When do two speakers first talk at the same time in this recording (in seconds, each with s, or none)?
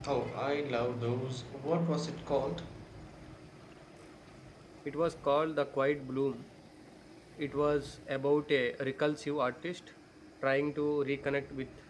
none